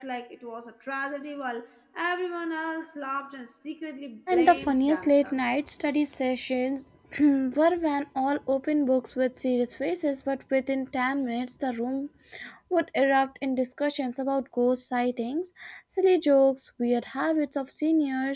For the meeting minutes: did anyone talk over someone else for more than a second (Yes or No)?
Yes